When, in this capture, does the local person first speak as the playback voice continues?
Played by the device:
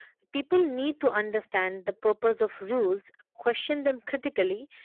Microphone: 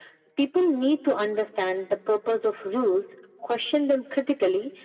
none

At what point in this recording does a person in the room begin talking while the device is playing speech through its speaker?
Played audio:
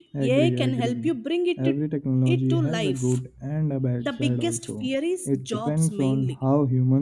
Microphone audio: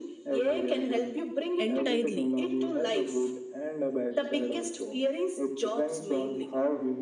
1.6 s

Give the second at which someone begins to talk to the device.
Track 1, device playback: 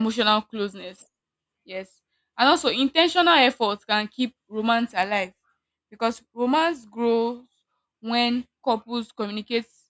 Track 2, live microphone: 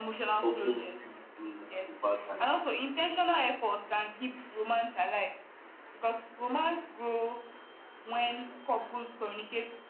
0.4 s

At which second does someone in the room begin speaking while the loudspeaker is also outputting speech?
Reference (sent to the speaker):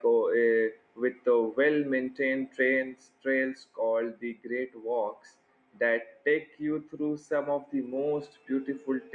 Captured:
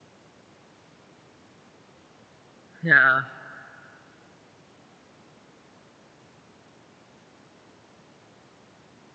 2.8 s

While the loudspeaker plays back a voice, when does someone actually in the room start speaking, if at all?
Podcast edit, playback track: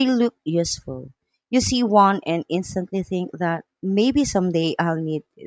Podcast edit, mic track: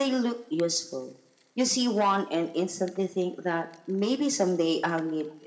none

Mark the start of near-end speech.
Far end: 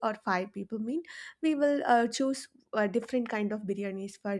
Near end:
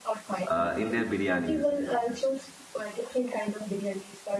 0.5 s

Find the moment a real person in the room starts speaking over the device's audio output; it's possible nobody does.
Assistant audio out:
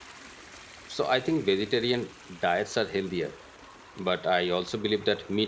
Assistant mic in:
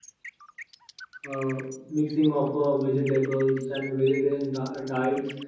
1.3 s

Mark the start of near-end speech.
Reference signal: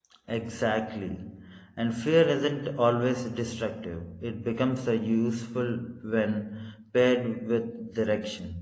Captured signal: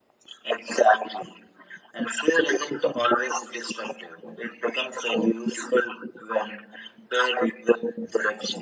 none

